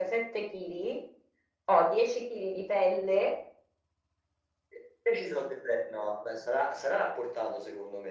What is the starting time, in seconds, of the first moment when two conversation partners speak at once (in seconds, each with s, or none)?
none